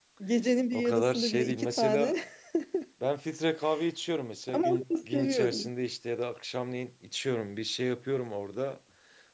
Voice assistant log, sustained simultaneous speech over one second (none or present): present